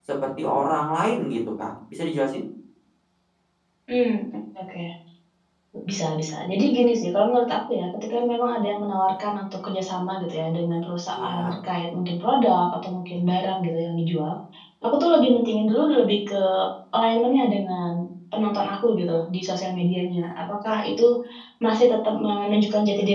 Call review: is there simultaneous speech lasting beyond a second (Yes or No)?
No